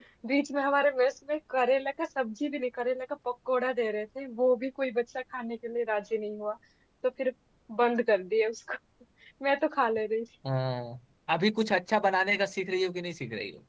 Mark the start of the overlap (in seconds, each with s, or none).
none